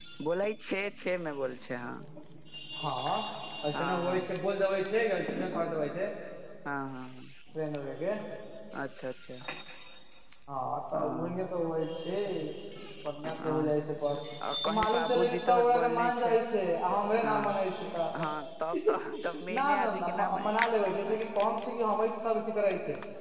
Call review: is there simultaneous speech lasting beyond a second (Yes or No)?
Yes